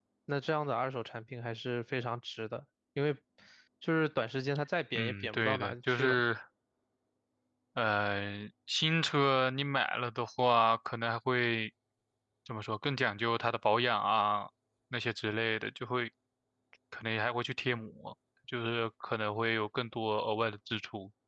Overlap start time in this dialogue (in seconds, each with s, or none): 5.0 s